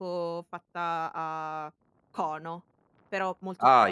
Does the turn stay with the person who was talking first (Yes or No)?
No